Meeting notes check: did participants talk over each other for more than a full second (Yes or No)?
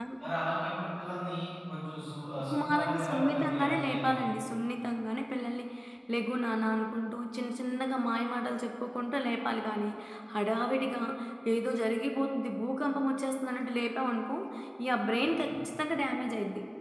Yes